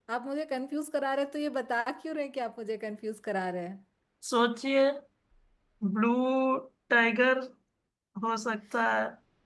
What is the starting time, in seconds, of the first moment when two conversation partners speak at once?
none

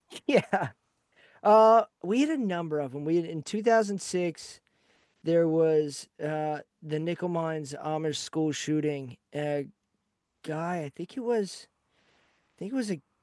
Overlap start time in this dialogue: none

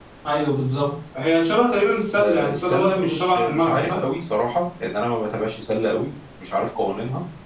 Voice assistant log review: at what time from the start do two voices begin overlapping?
2.2 s

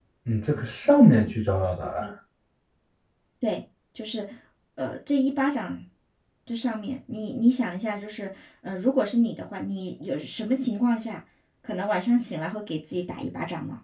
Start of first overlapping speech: none

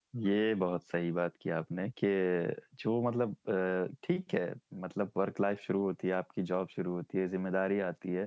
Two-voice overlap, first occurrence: none

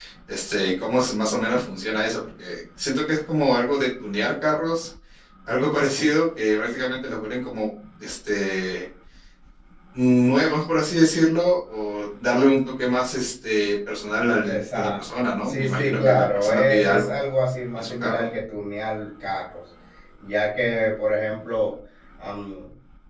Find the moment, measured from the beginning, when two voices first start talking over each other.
14.4 s

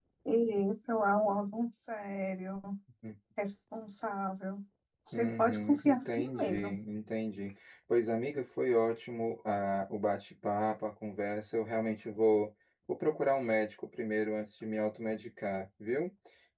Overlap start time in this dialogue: 5.1 s

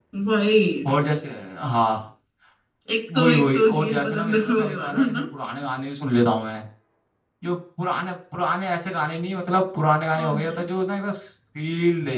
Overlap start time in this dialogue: 3.1 s

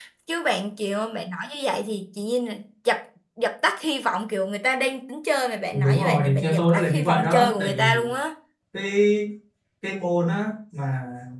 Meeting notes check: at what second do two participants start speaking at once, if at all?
5.7 s

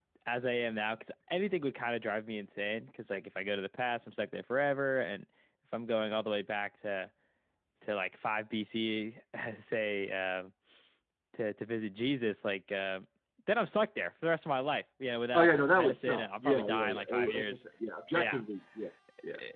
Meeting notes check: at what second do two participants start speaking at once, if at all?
15.3 s

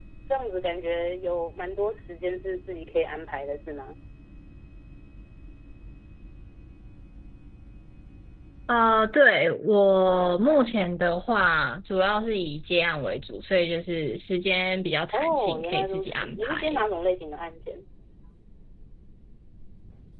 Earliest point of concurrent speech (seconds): 15.1 s

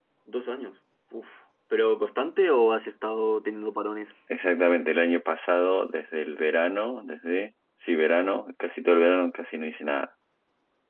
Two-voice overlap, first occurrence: none

